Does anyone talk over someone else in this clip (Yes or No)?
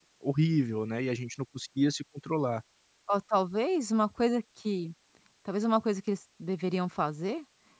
No